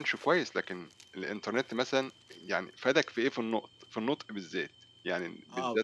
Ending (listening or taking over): taking over